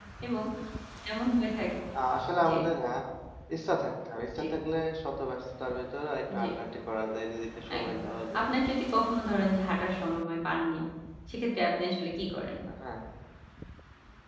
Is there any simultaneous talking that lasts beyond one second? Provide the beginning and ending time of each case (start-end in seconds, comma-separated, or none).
none